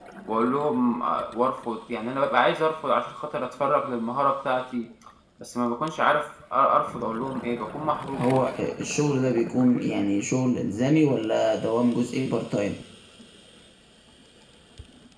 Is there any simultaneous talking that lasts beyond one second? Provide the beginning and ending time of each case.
none

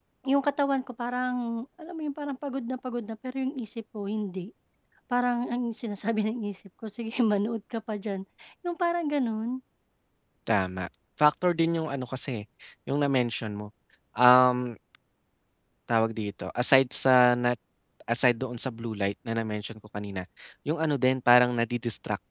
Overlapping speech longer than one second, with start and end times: none

